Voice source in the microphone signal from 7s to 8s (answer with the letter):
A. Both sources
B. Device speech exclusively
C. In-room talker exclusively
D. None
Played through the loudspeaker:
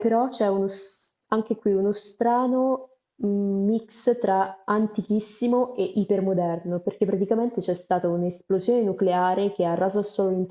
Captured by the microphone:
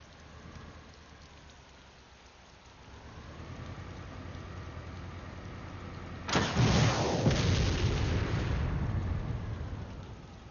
D